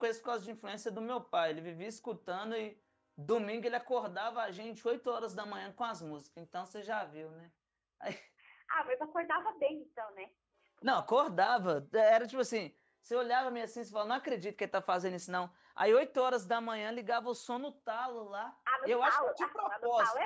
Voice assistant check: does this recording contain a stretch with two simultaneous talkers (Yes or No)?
Yes